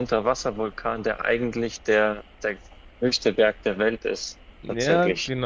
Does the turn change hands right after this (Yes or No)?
Yes